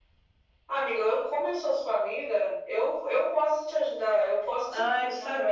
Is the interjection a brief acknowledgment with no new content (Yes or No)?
No